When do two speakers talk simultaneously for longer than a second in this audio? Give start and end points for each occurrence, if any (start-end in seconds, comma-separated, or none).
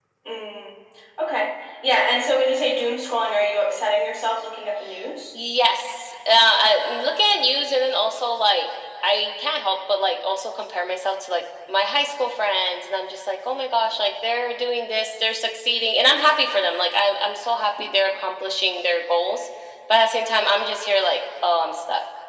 none